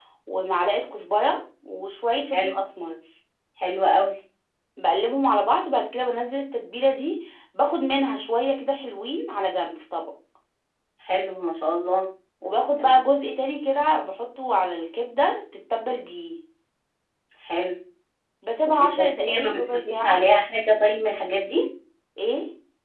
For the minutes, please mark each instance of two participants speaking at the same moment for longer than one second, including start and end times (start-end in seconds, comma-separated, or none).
18.7-20.2